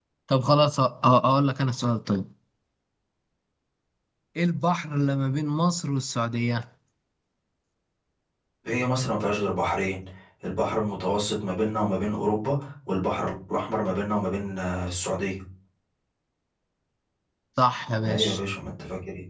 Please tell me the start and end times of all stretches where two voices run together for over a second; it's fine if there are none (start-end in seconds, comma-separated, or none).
none